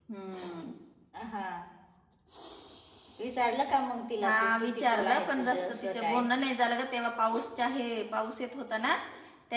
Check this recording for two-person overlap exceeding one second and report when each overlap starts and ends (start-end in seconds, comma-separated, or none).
4.2-6.2